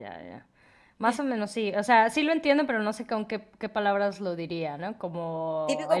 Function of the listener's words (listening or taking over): taking over